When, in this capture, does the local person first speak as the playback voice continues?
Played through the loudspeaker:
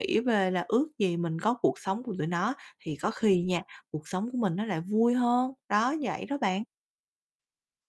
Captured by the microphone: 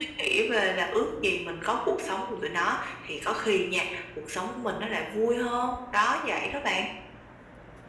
none

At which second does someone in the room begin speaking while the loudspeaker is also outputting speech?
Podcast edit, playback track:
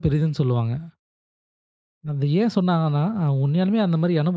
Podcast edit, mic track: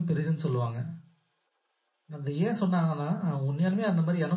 none

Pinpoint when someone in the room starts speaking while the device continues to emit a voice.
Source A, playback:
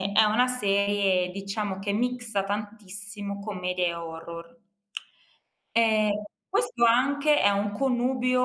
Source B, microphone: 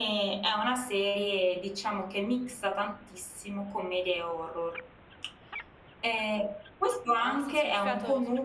7.2 s

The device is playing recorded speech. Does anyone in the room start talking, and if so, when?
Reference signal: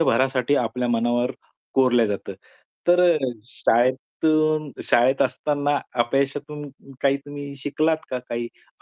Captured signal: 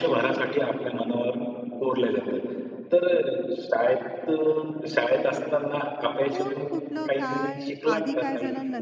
6.3 s

